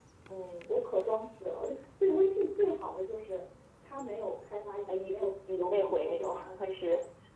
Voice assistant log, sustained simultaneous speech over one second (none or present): present